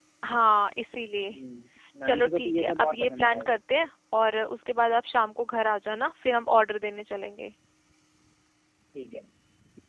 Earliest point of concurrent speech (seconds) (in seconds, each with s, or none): 2.0 s